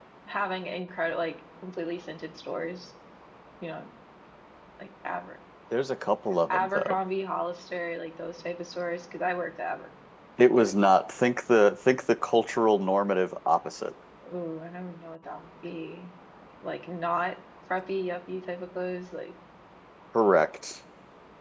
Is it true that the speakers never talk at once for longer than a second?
Yes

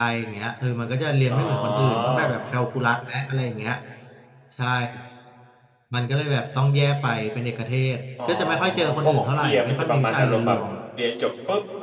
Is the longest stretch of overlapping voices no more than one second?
No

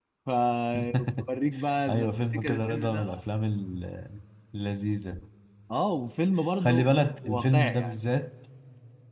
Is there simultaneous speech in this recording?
Yes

